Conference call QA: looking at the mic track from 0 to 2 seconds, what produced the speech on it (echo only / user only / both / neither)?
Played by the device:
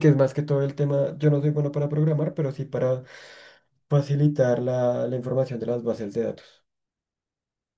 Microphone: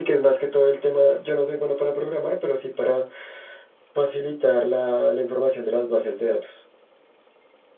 echo only